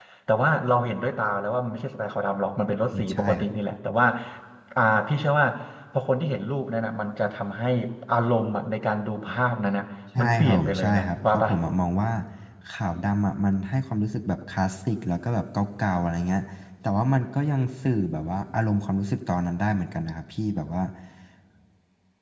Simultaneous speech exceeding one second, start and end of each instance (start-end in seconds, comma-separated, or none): 10.2-11.5